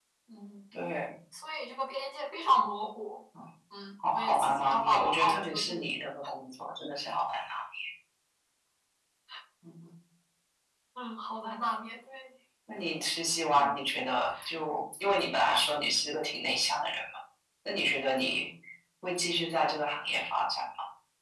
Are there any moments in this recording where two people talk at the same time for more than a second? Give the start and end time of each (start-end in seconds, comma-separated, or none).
4.1-5.9